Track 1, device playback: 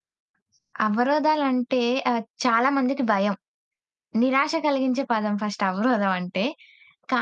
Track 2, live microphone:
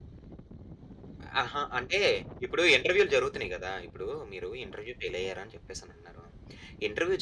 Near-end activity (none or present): present